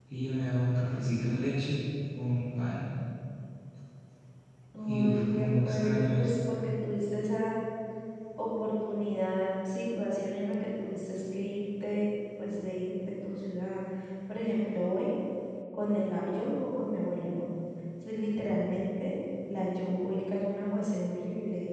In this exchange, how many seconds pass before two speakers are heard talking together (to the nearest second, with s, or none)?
5 s